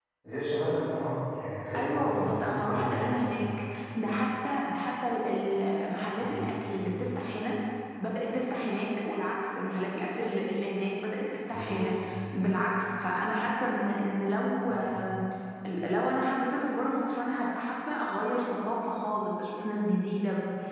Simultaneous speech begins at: 1.8 s

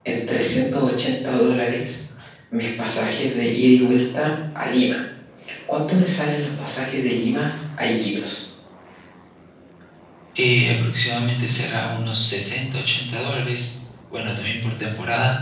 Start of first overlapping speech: none

